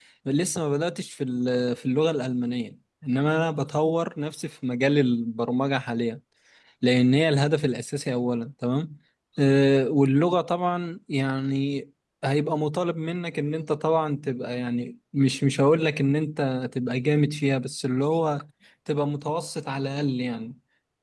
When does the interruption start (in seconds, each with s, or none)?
none